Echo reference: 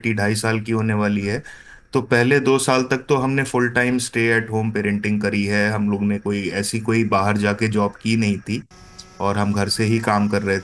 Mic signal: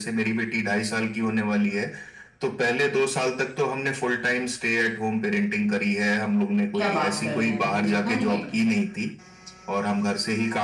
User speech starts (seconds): 7 s

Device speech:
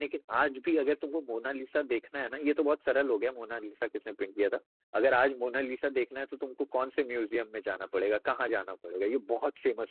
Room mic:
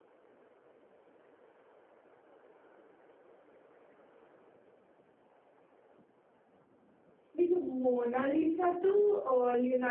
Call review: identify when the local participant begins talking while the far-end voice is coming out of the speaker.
7 s

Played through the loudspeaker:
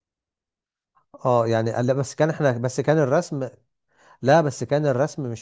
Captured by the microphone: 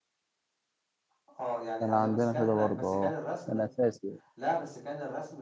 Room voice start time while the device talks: 2 s

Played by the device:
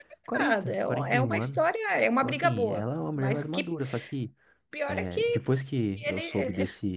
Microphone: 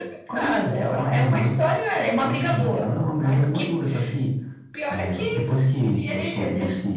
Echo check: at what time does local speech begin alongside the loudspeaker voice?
none

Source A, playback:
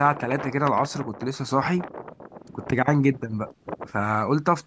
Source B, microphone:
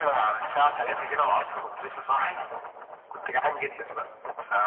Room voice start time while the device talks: none

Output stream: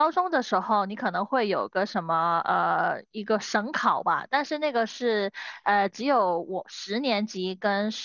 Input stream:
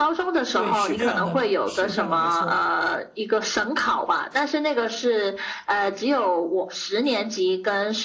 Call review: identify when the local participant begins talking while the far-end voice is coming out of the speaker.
1 s

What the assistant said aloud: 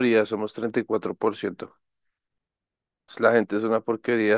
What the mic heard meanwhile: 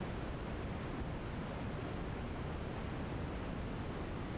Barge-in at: none

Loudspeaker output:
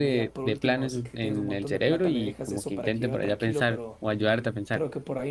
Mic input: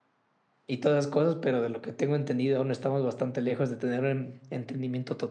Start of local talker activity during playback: 1 s

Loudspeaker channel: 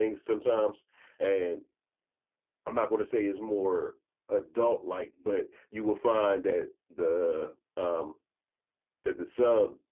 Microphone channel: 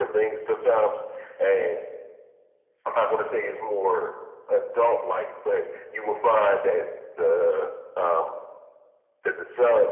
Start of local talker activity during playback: none

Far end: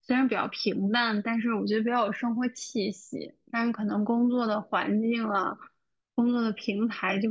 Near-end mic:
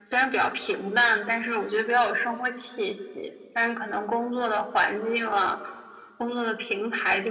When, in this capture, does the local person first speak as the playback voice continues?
none

